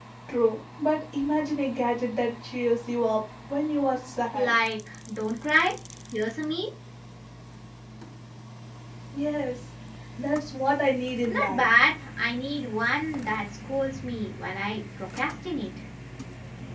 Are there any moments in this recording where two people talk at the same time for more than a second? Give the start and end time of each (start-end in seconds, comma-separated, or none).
none